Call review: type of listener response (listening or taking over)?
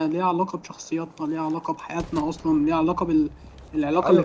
taking over